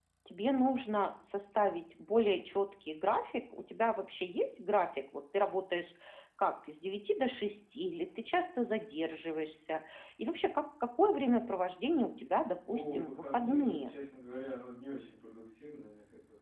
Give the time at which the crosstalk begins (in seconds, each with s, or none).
12.7 s